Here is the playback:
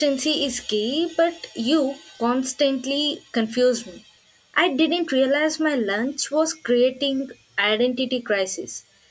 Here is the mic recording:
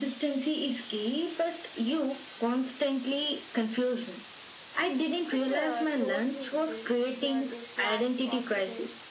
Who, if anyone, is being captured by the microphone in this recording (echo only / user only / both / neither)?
both